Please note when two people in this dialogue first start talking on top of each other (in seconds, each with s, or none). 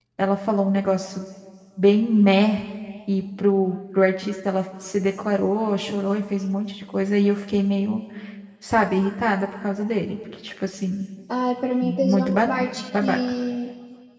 11.8 s